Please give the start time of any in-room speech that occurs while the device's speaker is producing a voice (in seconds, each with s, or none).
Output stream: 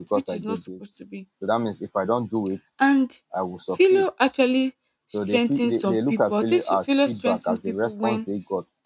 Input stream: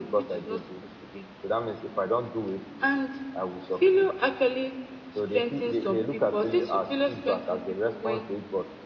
none